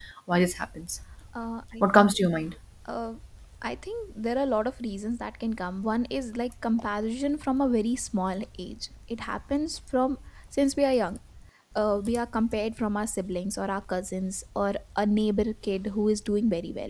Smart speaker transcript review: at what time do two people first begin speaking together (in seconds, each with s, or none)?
none